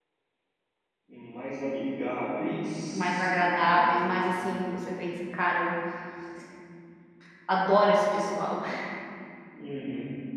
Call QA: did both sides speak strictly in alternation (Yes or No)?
No